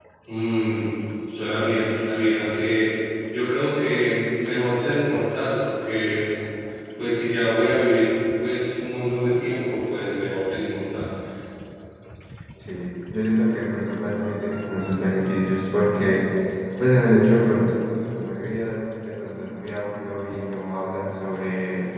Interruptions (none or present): none